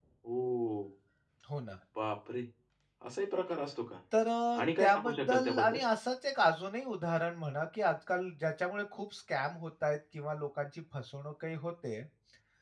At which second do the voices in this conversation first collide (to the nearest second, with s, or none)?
5 s